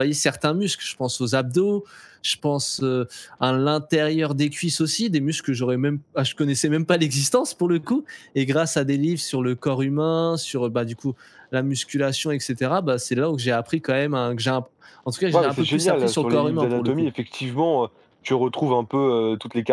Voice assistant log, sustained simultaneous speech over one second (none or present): present